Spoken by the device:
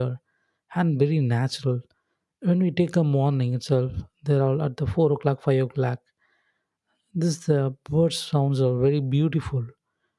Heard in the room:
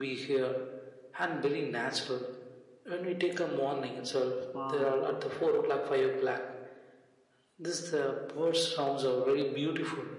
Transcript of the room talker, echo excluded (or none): parks